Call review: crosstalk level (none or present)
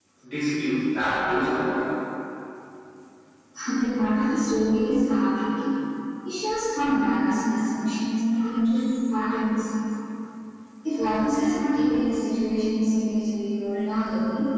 none